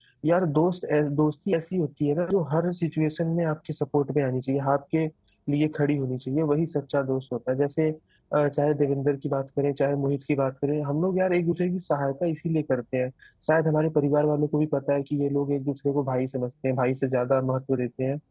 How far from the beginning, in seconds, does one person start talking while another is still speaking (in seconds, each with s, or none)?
none